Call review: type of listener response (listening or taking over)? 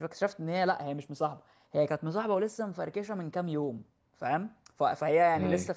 listening